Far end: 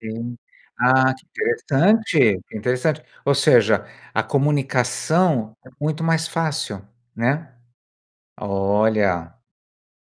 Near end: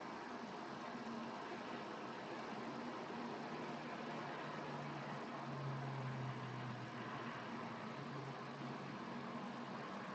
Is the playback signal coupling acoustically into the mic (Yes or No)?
No